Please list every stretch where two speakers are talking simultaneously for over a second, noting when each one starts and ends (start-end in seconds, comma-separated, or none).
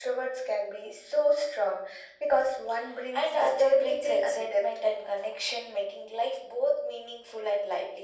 3.1-4.6